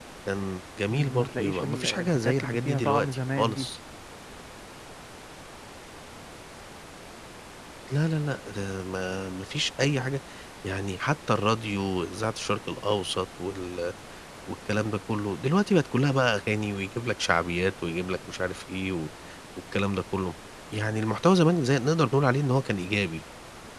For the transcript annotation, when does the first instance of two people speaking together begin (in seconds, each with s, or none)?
0.9 s